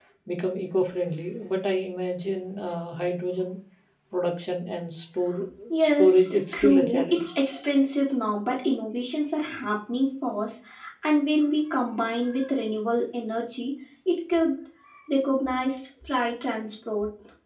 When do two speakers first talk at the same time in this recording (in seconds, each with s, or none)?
5.8 s